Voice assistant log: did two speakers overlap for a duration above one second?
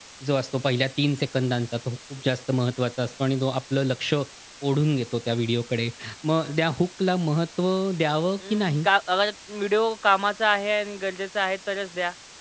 No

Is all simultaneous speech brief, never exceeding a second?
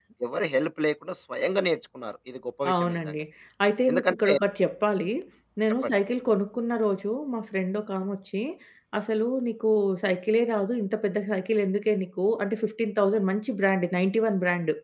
Yes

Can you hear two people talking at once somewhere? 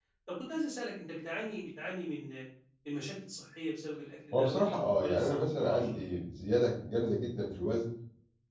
Yes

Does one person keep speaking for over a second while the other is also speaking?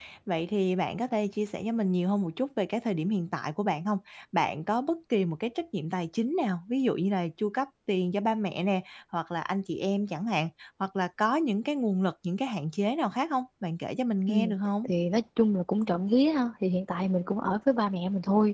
No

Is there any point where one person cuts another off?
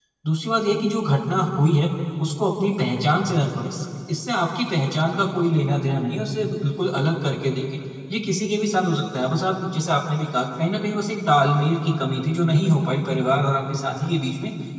No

